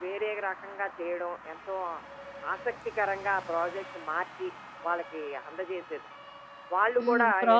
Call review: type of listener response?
taking over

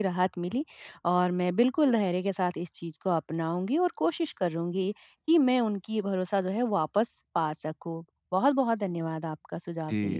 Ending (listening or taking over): taking over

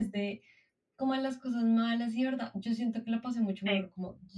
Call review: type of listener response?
listening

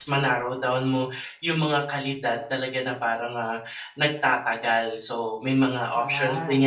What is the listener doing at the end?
listening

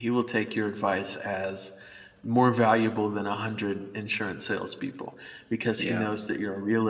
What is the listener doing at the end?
listening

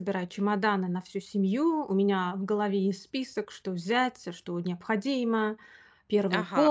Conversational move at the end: taking over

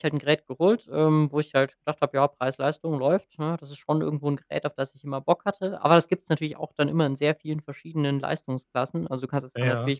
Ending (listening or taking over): listening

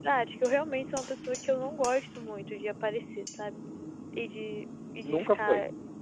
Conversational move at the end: listening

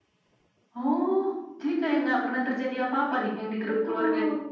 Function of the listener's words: taking over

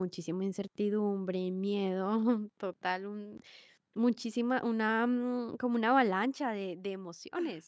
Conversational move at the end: taking over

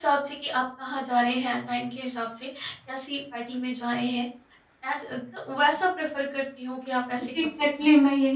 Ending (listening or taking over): taking over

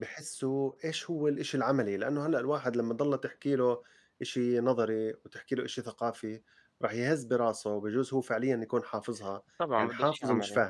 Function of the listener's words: taking over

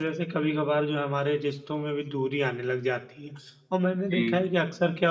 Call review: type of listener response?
listening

